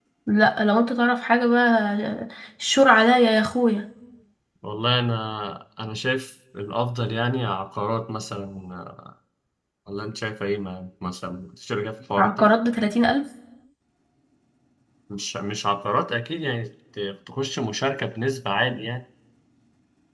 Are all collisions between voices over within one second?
Yes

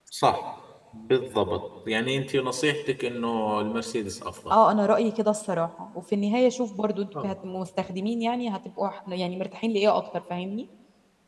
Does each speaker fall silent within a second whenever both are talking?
Yes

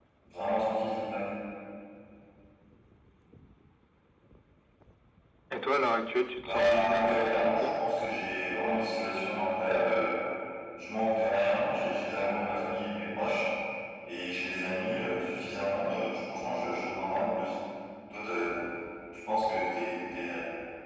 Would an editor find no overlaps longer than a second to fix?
No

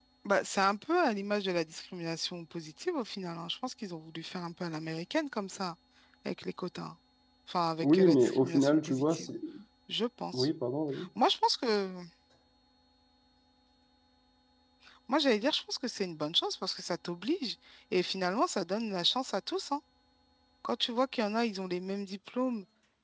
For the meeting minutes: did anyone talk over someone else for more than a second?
Yes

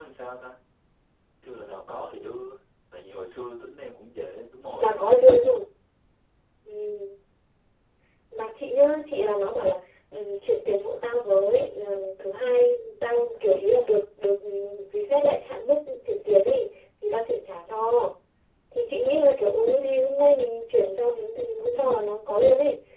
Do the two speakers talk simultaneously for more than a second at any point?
No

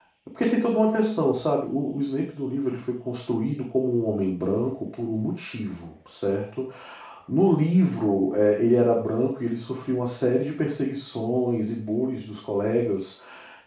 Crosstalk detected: No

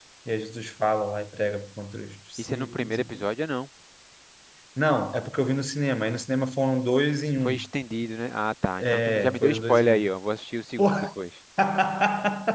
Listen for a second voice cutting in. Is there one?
Yes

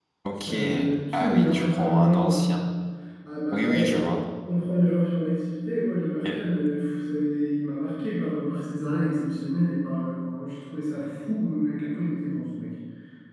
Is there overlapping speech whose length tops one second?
Yes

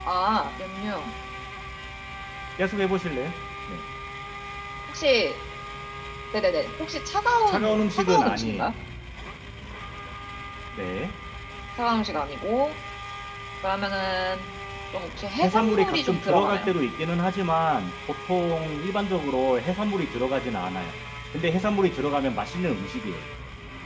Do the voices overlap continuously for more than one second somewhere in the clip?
Yes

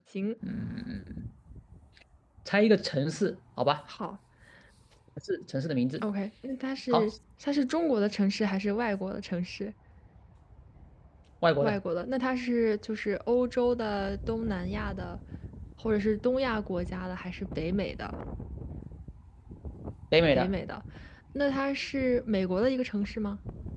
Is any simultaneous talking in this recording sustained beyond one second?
No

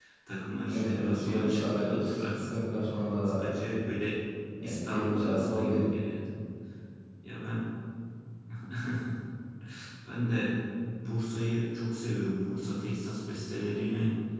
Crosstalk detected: Yes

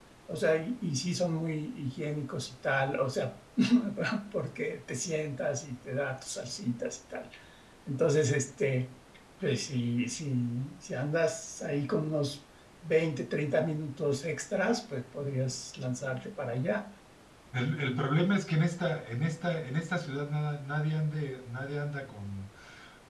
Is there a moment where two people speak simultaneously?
No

